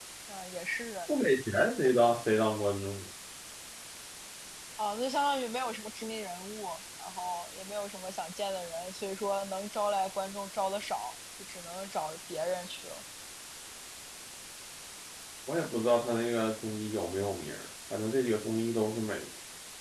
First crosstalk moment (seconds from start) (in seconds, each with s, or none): none